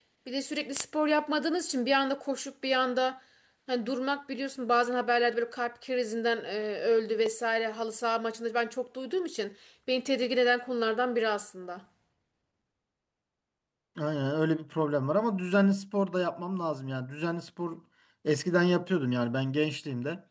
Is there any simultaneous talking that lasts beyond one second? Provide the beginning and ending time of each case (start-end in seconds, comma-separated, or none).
none